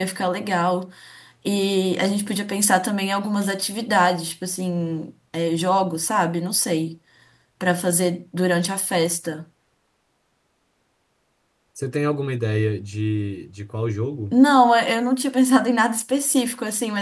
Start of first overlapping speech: none

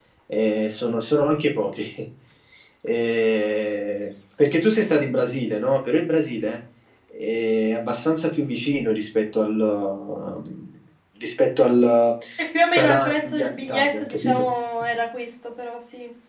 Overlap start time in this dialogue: 12.8 s

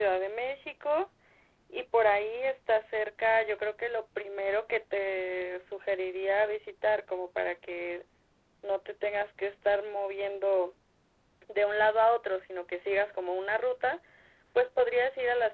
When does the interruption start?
none

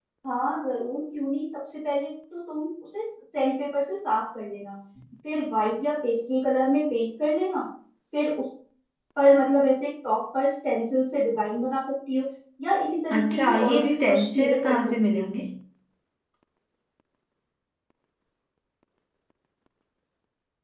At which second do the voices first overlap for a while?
13.1 s

